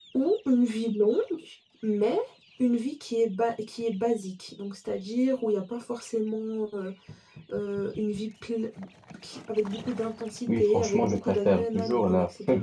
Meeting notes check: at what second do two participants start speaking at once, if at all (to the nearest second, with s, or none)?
10 s